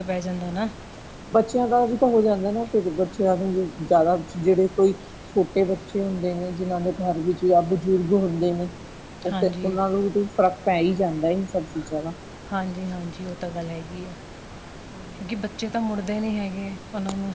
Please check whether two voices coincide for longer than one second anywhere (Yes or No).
No